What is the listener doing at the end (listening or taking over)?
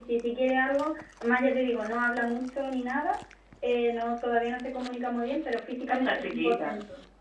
listening